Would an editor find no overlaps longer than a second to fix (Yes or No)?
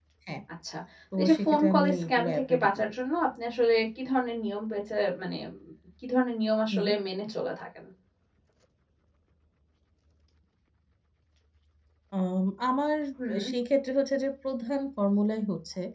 No